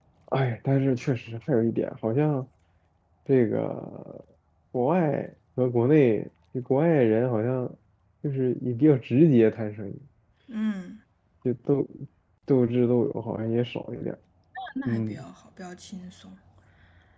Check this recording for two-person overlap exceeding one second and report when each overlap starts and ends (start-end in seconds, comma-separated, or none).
none